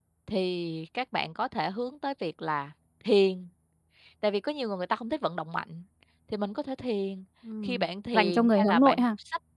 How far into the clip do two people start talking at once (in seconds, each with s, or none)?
7.6 s